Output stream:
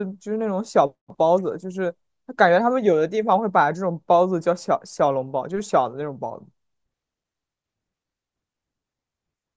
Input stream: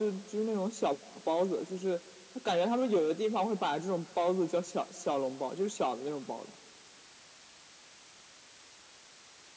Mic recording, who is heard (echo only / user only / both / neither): echo only